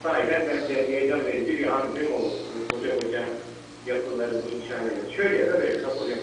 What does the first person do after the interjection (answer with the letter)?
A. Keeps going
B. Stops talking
B